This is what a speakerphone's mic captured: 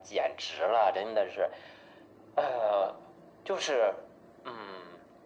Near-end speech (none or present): none